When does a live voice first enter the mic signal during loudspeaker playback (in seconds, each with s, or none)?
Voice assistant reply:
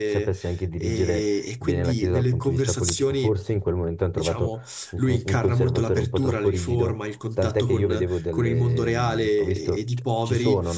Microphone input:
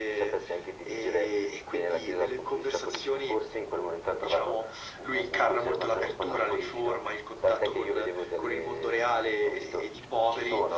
none